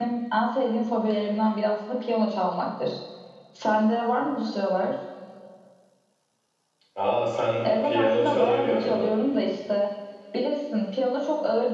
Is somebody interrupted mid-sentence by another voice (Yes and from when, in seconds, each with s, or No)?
Yes, from 7.6 s